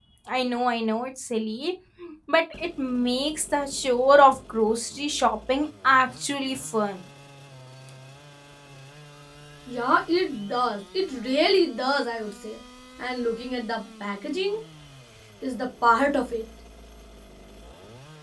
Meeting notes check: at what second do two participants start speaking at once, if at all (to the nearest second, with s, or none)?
none